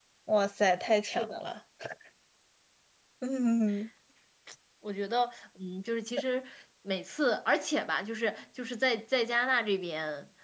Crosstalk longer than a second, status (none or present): none